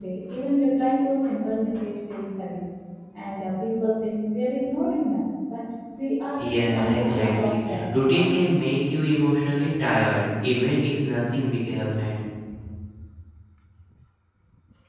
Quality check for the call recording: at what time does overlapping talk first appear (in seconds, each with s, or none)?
6.4 s